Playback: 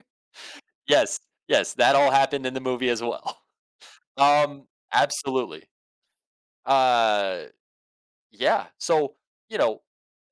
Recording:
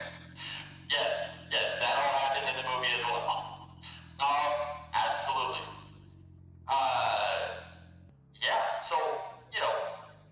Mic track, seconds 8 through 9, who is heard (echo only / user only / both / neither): echo only